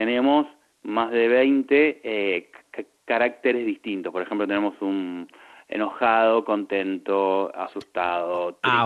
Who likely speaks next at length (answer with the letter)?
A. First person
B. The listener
B